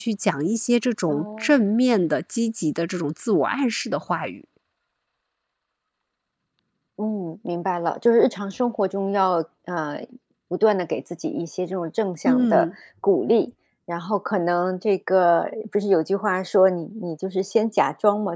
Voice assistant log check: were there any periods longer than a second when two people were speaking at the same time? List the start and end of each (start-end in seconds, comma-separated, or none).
none